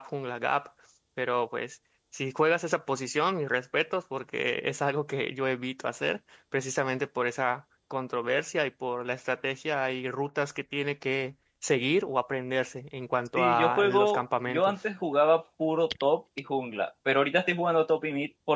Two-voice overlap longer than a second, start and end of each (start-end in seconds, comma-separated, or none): 13.4-14.8